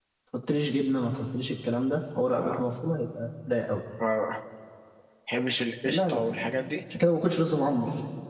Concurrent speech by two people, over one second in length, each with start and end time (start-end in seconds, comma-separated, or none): none